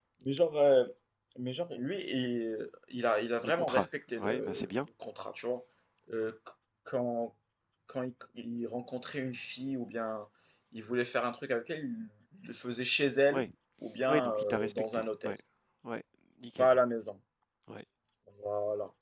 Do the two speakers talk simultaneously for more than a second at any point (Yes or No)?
Yes